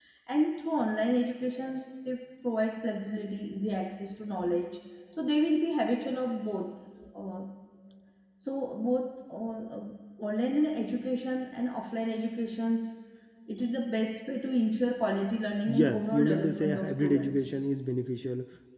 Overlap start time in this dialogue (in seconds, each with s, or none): 15.7 s